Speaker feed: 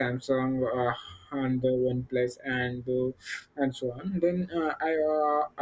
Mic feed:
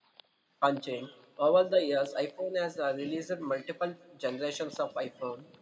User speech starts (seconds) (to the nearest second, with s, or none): 1 s